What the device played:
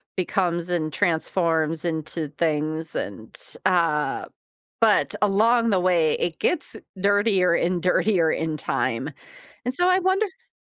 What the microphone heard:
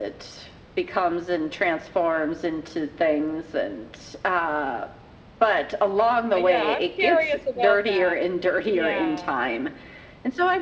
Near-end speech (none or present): present